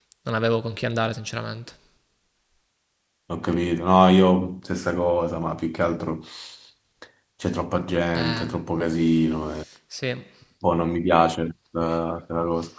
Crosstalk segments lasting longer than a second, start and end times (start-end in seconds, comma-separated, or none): none